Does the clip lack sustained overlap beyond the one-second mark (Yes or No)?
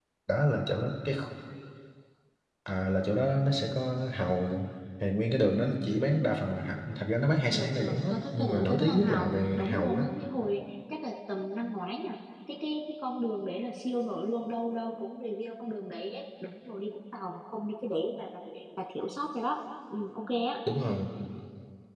No